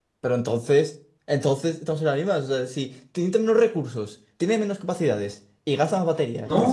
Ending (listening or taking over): taking over